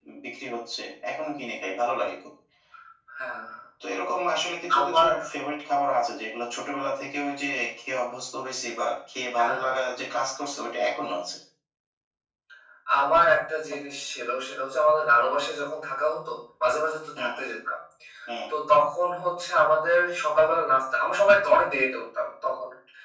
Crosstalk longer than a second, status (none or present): none